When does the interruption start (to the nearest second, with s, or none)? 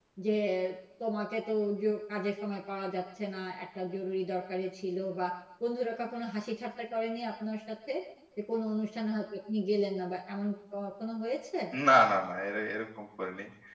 none